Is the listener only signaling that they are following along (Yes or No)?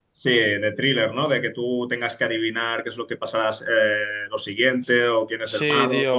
No